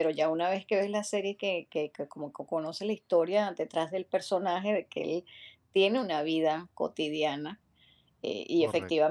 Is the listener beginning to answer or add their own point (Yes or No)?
No